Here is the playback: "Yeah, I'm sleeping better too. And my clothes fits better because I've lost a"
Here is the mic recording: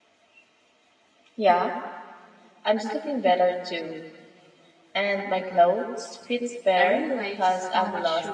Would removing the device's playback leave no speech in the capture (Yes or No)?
No